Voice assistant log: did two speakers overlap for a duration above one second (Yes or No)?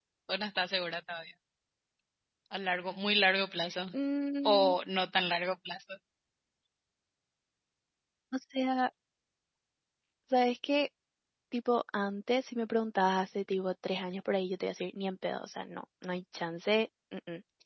No